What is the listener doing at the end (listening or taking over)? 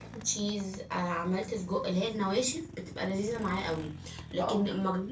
listening